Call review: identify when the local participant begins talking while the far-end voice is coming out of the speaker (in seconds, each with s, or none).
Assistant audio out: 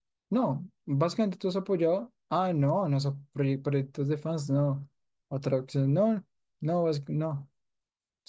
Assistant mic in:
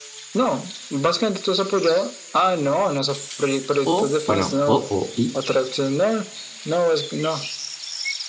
3.8 s